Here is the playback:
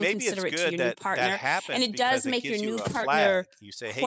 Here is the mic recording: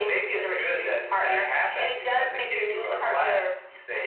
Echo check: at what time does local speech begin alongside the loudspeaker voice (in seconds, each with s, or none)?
none